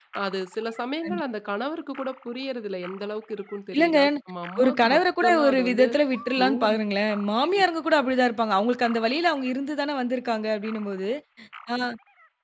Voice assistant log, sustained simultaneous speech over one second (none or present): present